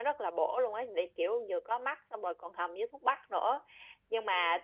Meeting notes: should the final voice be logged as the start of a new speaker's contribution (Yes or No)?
No